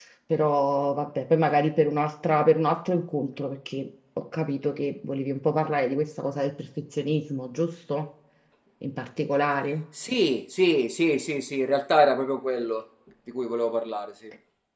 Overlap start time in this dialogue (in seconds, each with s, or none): none